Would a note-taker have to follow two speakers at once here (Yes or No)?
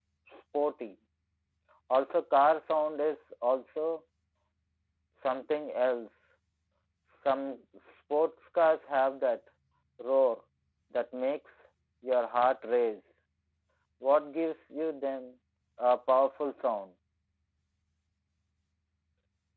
No